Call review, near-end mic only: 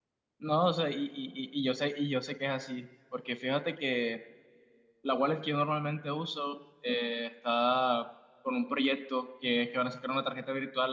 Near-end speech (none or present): present